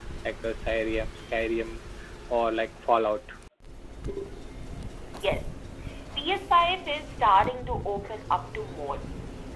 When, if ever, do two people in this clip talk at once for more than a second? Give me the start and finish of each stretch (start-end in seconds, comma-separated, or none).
none